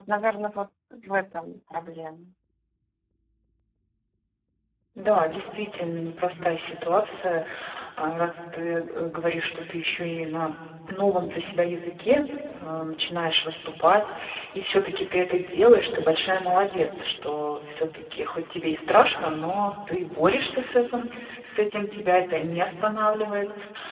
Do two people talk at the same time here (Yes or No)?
No